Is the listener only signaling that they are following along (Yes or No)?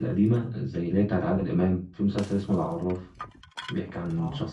Yes